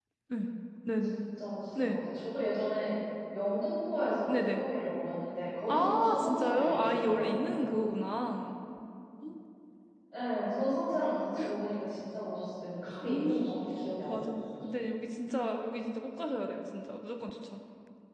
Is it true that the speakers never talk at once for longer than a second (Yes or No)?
No